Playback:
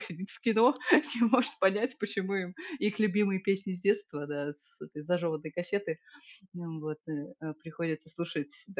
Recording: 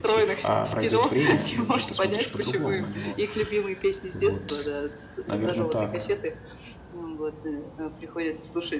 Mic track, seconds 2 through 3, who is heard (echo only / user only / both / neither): both